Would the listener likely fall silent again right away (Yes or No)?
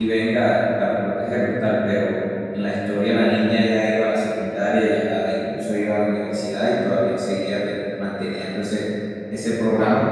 Yes